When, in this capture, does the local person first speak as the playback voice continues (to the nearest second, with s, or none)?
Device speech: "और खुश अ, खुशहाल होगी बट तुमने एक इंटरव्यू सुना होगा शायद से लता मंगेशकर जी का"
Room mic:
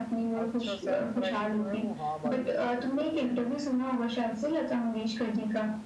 0 s